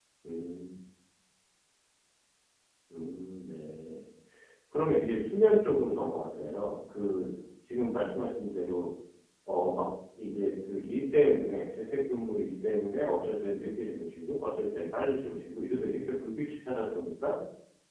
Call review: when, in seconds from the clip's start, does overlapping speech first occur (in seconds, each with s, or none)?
none